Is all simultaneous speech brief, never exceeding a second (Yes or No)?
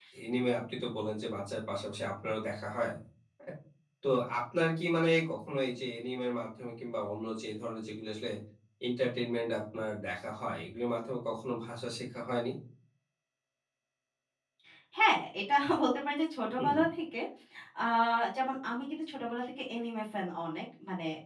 Yes